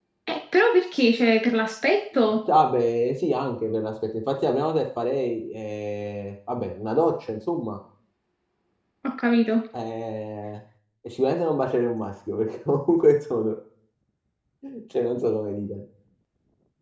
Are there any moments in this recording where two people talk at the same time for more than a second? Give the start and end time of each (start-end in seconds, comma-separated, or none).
none